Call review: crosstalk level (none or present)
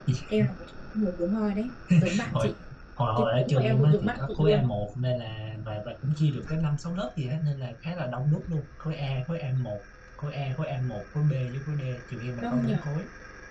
present